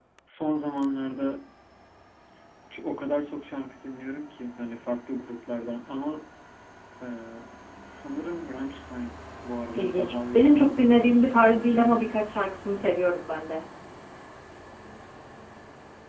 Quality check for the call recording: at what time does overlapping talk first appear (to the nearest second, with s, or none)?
10 s